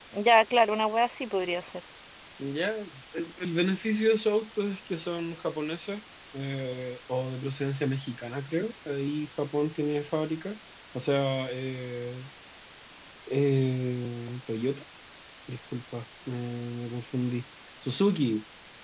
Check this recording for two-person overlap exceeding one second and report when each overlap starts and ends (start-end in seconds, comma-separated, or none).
none